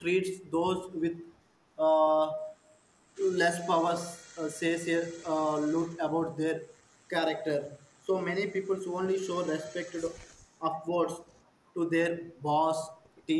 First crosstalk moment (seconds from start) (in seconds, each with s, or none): none